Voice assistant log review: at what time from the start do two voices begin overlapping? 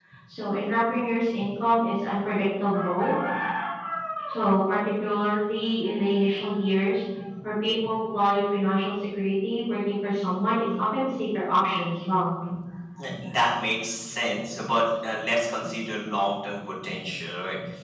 none

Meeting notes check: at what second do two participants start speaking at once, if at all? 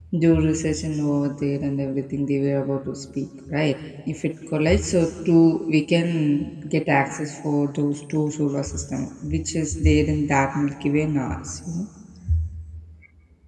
none

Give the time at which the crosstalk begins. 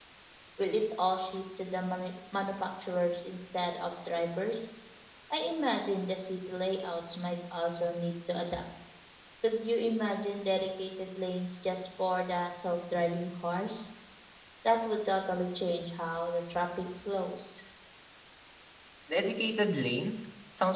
none

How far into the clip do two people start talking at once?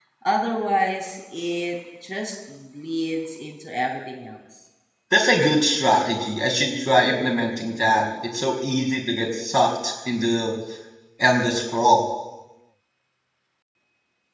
none

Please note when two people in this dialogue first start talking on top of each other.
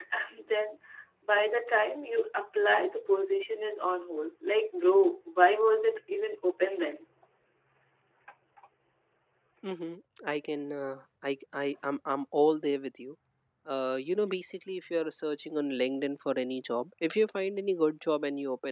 none

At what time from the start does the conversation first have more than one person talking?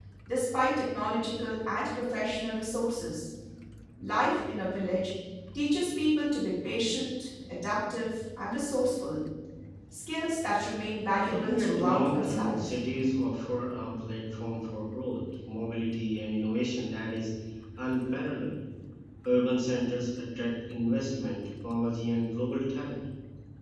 11.2 s

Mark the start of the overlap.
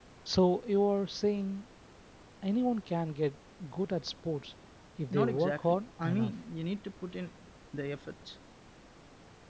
5.1 s

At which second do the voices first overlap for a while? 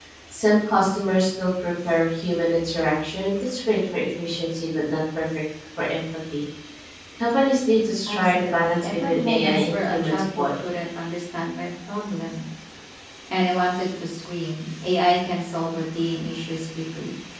8.1 s

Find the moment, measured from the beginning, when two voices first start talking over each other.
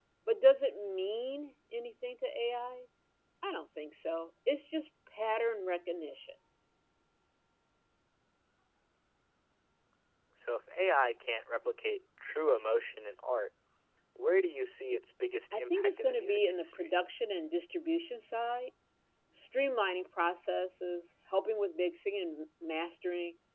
15.5 s

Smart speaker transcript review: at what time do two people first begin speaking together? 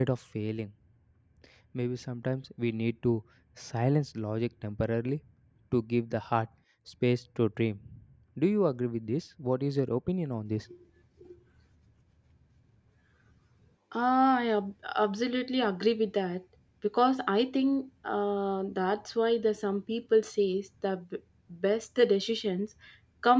none

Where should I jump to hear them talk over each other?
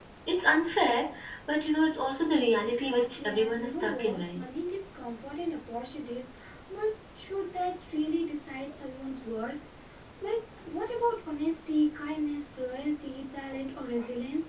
2.6 s

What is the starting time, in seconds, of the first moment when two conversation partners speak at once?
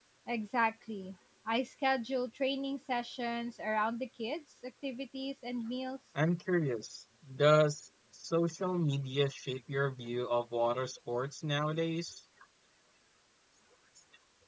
none

